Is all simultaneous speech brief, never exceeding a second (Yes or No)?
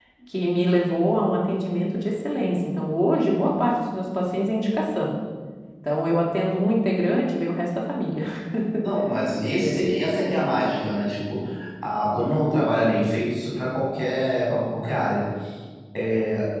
Yes